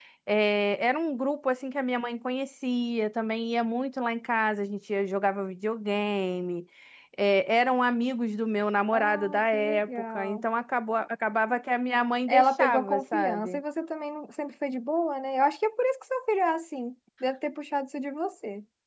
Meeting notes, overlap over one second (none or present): present